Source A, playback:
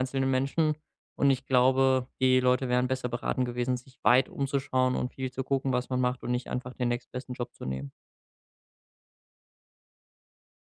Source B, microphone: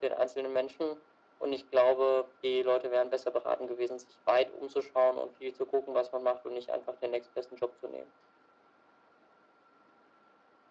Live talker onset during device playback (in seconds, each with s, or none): none